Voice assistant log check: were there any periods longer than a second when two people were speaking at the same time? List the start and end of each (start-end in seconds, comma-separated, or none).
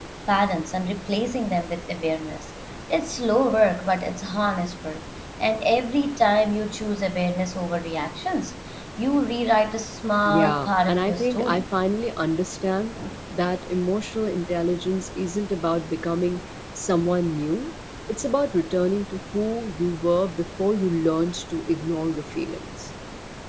10.2-11.6